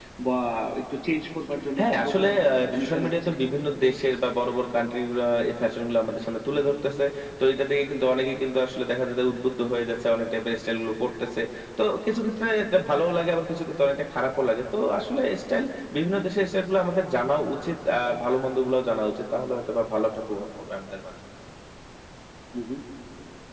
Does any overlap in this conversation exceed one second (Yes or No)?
Yes